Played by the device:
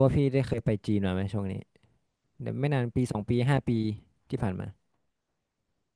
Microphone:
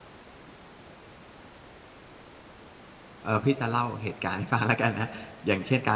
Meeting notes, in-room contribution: present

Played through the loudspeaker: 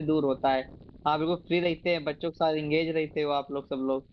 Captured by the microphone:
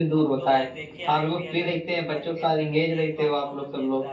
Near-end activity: present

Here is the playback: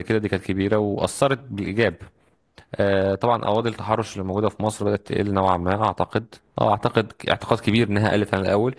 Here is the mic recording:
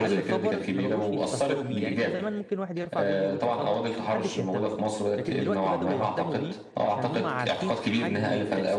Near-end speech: present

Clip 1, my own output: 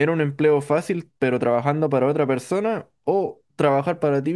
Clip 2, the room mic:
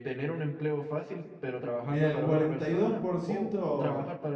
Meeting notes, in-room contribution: present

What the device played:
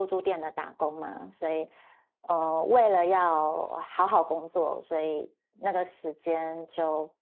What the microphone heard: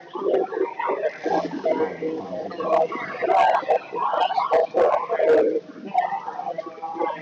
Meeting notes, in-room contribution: present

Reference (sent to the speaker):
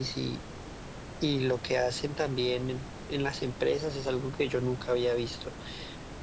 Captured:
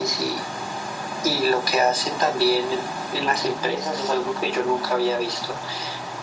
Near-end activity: none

